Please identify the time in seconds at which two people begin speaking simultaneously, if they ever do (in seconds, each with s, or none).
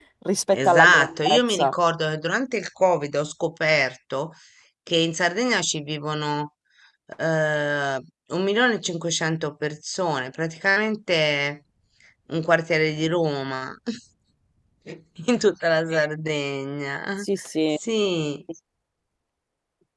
0.5 s